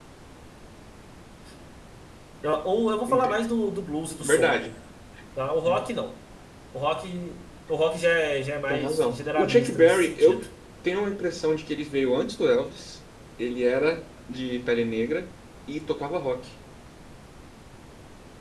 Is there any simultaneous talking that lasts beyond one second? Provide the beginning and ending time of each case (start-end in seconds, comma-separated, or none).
8.7-10.4